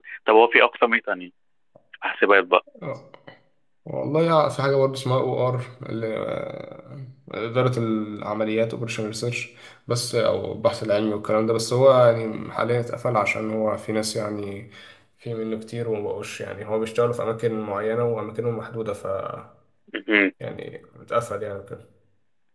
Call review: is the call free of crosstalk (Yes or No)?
Yes